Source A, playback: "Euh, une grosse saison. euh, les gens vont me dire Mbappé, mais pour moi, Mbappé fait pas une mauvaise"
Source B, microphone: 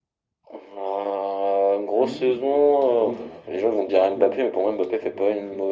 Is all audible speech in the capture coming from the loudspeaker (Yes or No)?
No